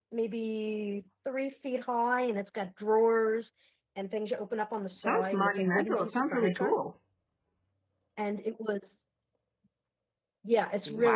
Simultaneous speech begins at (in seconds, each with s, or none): 5.0 s